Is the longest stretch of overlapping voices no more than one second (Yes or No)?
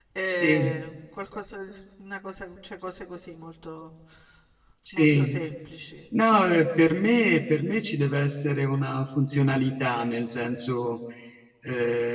Yes